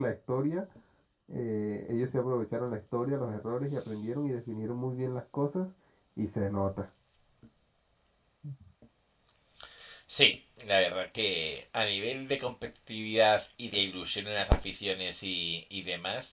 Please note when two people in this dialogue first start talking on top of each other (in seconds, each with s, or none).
none